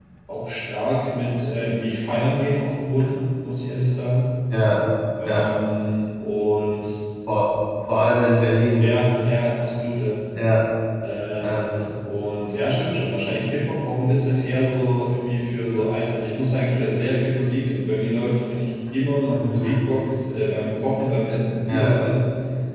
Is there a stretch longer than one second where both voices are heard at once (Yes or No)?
No